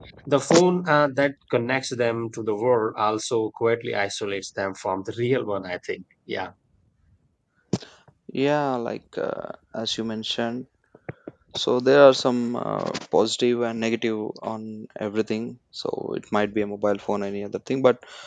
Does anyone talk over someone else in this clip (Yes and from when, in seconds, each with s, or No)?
No